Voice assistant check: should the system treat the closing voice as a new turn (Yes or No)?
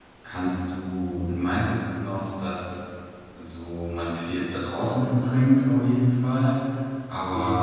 No